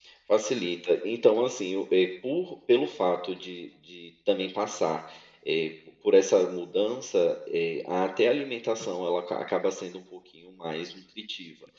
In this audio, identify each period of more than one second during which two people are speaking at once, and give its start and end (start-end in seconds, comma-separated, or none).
none